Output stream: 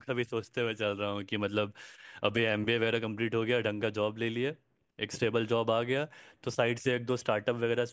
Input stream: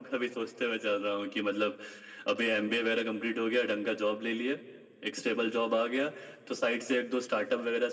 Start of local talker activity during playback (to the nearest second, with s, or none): none